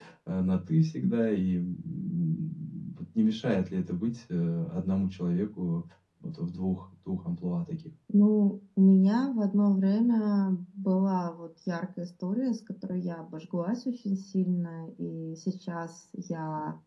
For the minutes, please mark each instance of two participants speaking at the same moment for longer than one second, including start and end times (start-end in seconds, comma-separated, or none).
none